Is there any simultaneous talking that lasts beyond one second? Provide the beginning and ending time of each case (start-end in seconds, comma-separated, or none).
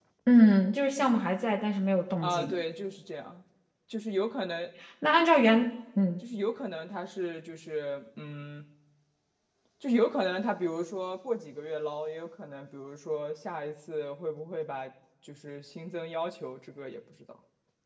none